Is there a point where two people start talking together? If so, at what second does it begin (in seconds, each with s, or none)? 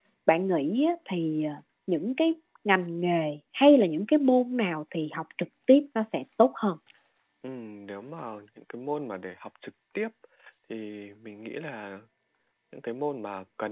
none